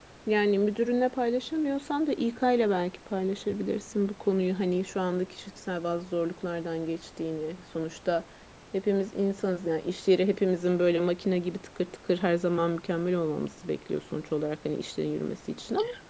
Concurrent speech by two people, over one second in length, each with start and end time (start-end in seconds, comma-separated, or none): none